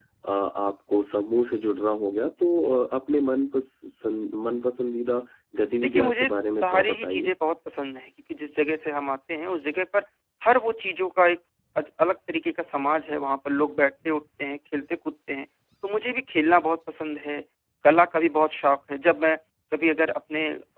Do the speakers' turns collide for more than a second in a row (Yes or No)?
Yes